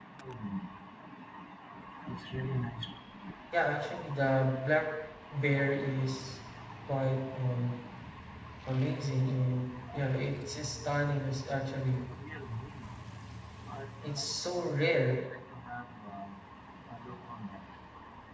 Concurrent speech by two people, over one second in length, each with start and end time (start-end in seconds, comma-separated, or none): none